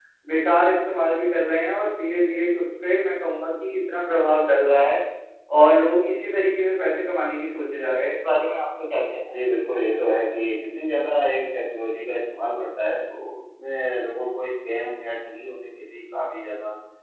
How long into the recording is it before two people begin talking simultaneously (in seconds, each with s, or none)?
none